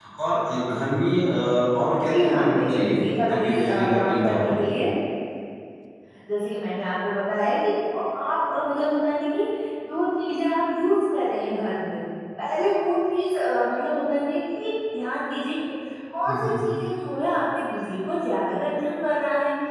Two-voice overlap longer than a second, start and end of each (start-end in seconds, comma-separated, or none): 2.1-4.6